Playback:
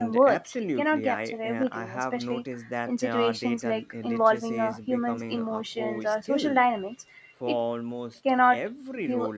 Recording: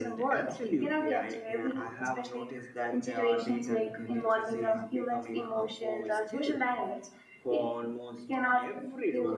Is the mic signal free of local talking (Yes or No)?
Yes